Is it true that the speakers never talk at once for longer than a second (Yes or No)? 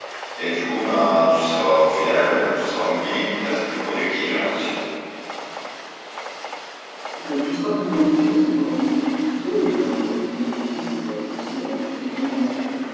Yes